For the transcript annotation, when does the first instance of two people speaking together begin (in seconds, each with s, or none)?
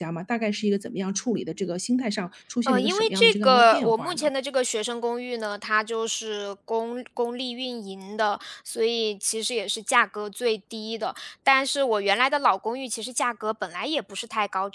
2.7 s